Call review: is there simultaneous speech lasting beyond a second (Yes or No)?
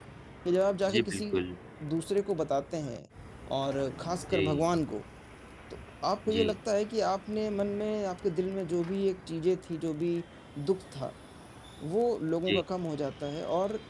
No